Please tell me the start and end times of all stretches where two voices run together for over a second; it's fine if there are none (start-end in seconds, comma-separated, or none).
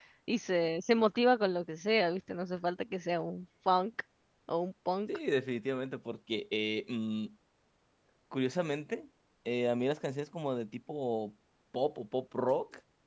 none